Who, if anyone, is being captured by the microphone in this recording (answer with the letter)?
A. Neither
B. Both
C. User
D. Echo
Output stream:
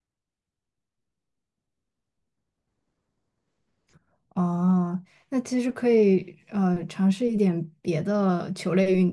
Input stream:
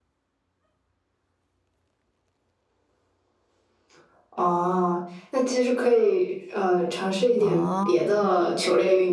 B